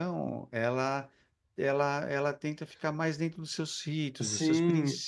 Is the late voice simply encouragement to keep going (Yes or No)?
No